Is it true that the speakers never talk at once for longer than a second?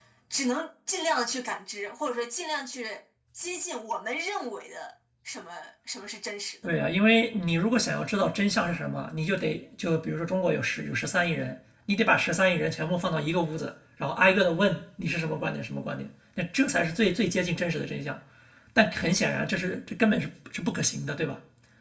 Yes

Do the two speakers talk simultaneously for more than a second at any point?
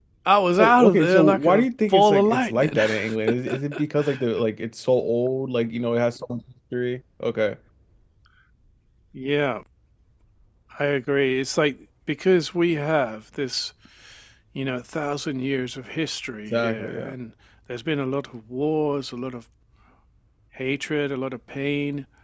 Yes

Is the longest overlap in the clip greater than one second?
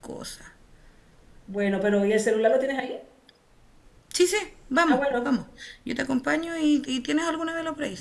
No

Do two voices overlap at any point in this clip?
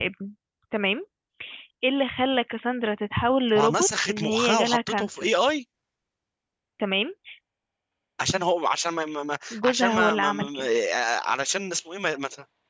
Yes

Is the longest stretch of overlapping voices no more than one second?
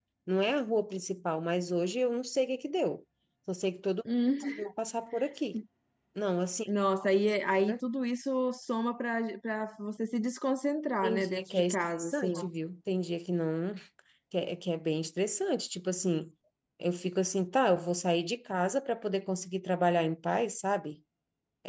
No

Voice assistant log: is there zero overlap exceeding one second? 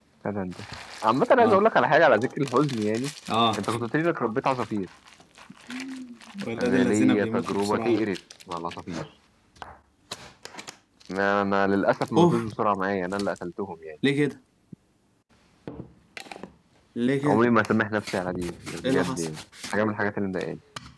No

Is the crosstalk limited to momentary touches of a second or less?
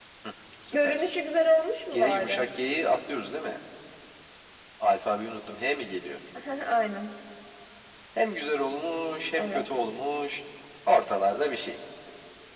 Yes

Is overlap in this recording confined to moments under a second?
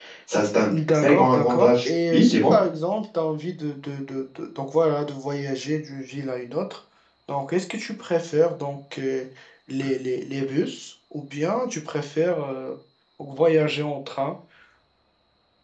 No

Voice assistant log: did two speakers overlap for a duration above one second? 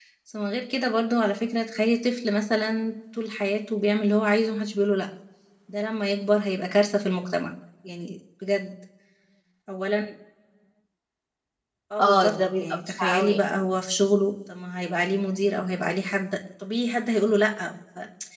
Yes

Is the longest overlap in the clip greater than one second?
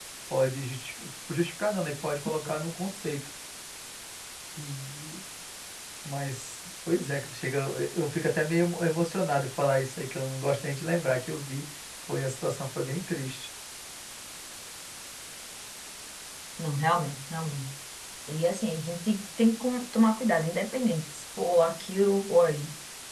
No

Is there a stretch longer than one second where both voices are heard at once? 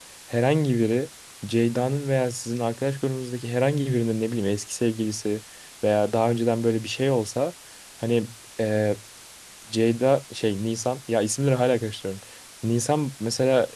No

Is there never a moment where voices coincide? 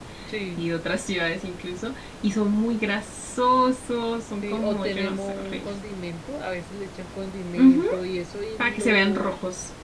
No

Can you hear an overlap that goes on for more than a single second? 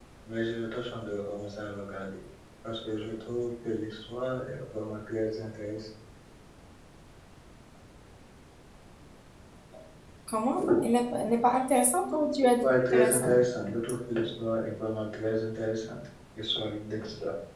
Yes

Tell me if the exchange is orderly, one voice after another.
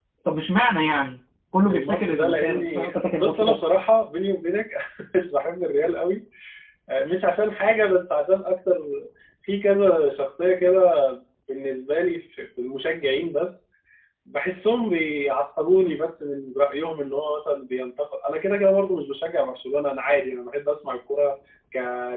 No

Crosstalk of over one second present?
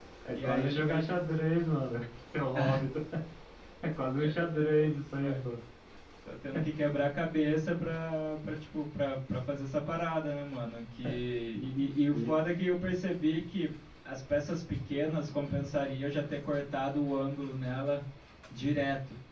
Yes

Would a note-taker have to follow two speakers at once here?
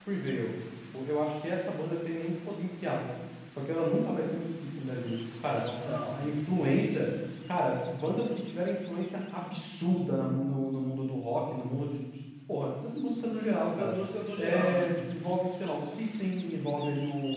Yes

